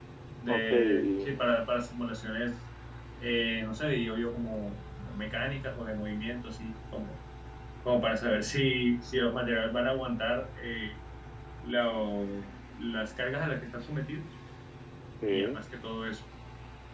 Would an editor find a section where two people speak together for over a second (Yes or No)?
Yes